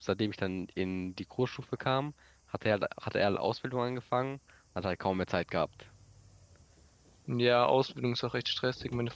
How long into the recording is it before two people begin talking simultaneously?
none

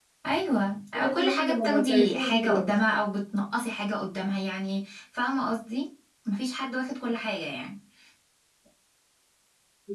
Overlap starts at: 0.9 s

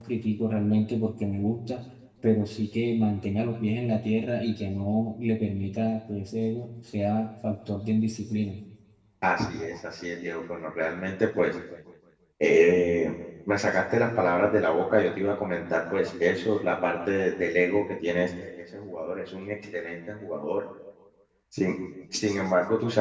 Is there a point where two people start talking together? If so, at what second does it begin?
none

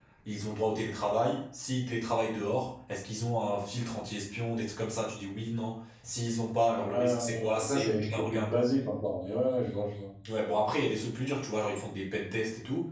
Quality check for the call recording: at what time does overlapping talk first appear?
6.9 s

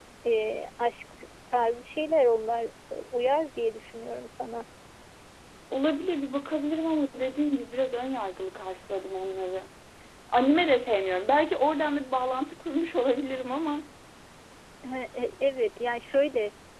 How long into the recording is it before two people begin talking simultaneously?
none

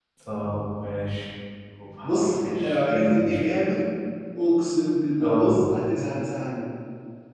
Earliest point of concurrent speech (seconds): 2.0 s

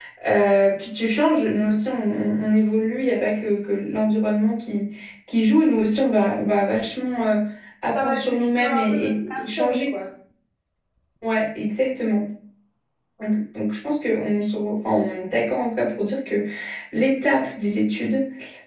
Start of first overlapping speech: 8.0 s

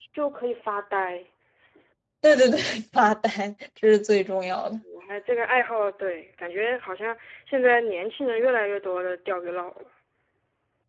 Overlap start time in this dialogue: none

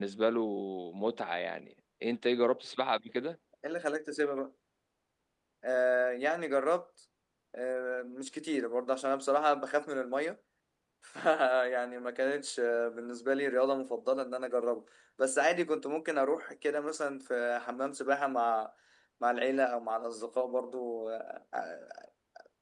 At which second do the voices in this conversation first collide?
none

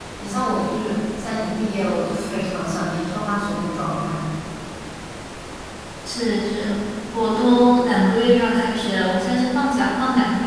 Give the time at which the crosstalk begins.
none

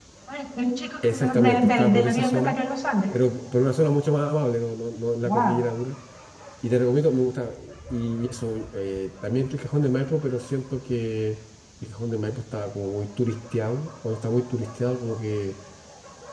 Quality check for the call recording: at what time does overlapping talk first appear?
1.0 s

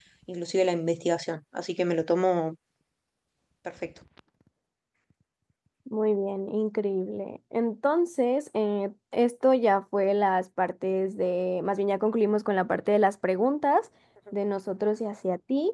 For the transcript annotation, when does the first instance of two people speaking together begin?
none

